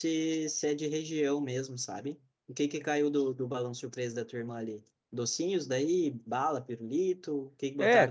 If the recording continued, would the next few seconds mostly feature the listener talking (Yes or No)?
Yes